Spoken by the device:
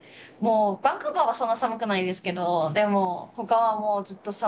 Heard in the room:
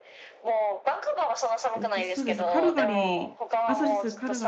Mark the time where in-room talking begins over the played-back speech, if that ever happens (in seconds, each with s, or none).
1.7 s